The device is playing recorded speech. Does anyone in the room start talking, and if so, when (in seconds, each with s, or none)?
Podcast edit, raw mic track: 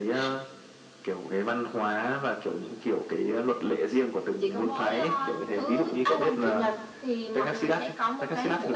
none